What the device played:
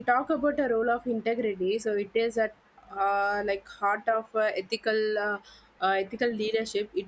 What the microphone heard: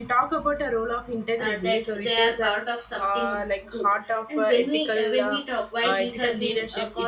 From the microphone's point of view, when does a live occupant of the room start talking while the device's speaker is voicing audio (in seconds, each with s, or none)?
1.4 s